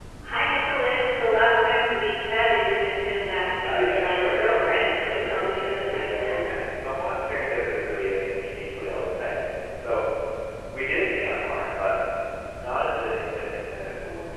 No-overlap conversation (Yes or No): No